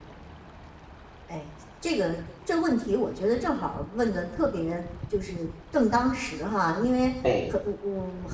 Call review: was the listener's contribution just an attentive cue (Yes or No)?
Yes